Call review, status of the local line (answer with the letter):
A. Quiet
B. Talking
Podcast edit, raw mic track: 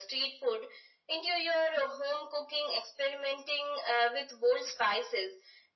A